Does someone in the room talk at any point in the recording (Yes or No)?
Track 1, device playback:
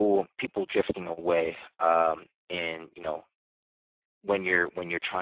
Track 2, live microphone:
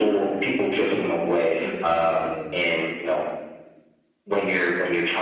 Yes